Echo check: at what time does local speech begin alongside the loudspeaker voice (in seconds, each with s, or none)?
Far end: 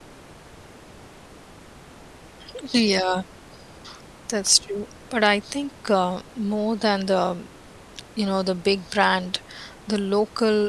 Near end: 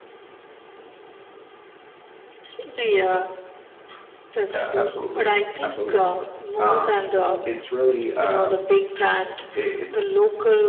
4.5 s